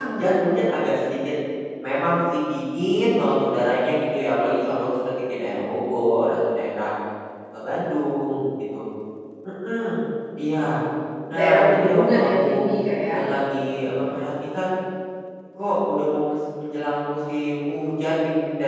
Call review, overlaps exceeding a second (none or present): present